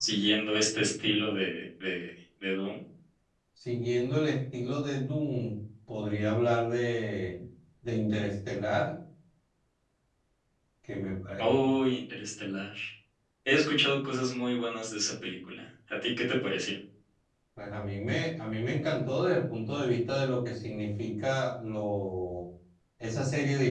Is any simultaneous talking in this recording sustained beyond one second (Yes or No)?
No